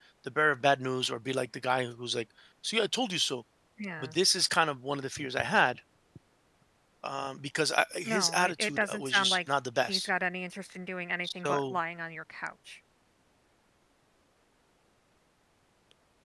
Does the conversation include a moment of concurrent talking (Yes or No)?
Yes